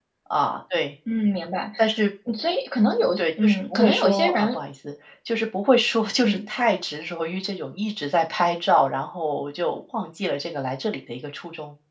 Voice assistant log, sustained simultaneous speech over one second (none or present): present